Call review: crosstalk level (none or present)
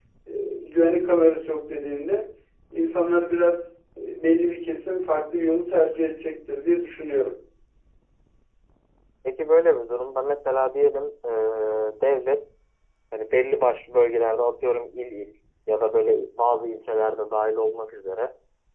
none